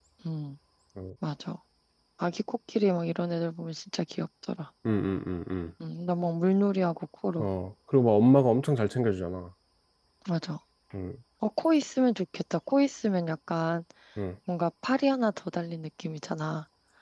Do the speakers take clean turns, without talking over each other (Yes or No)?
Yes